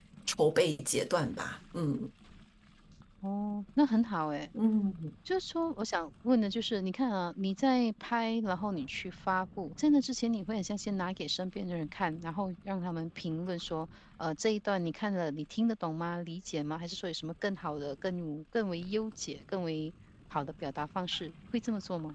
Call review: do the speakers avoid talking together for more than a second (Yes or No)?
Yes